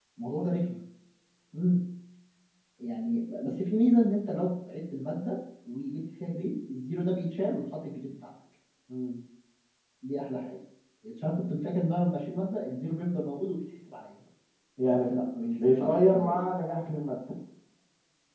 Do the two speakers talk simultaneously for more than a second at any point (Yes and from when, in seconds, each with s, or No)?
Yes, from 14.9 s